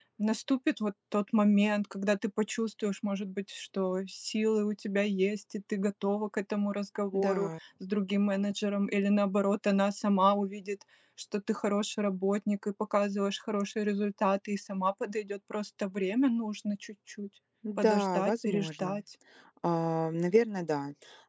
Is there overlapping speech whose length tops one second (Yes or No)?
Yes